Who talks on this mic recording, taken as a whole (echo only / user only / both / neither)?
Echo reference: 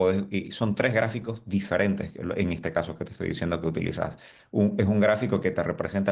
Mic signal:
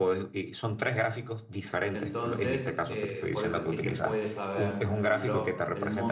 both